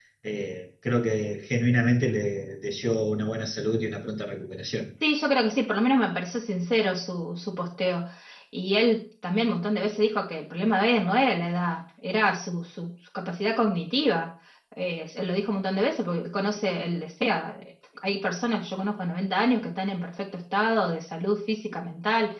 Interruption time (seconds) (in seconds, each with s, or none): none